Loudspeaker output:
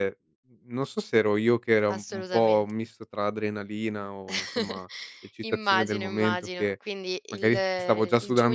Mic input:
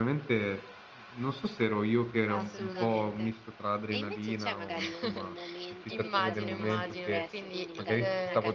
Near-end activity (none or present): present